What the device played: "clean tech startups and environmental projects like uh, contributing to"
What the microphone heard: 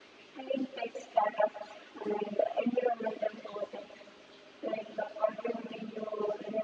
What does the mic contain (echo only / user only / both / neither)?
echo only